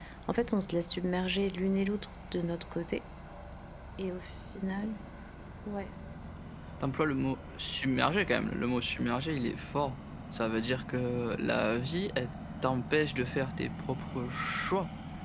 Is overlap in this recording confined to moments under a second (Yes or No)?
Yes